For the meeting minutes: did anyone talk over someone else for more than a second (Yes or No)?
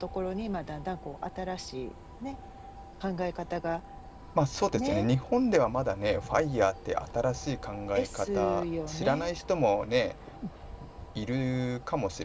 Yes